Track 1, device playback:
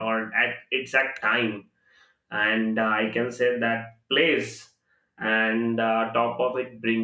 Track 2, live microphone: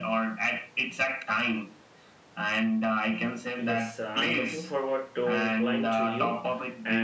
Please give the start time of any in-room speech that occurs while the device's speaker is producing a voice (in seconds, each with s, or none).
3.6 s